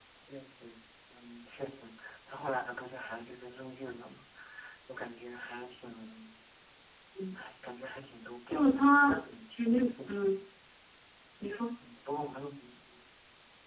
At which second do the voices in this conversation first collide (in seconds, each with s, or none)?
8.5 s